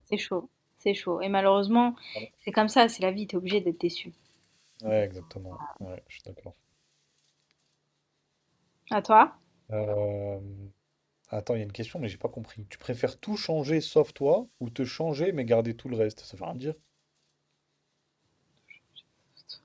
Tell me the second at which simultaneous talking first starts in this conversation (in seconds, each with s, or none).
none